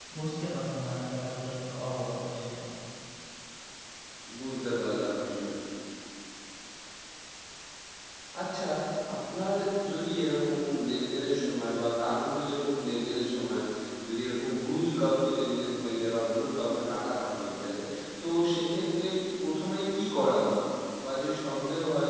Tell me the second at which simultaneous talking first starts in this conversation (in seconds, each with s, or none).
none